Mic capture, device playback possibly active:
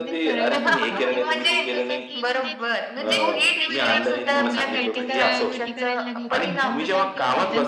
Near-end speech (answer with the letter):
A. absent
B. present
B